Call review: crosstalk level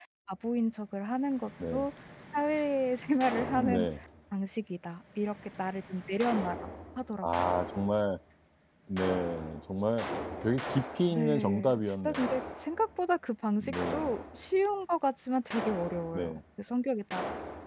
present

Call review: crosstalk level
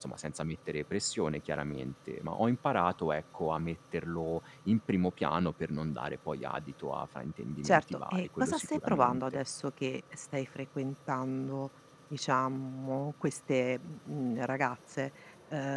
present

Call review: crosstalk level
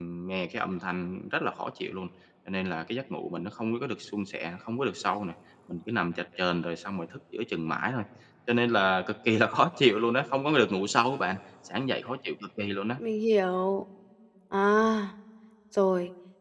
none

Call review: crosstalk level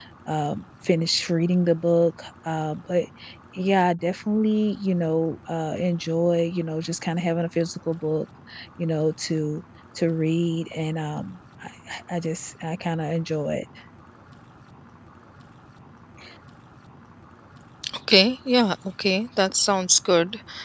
none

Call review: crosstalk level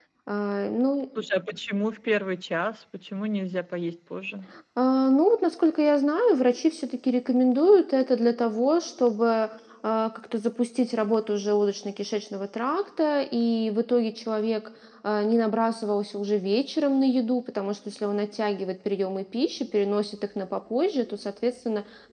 none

